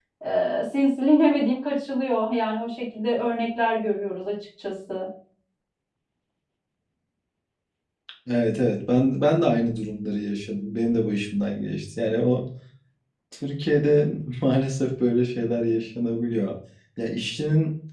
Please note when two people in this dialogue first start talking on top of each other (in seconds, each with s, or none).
none